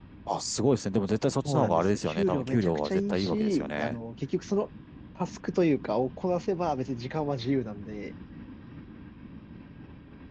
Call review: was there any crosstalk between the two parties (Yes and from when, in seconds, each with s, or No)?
Yes, from 1.4 s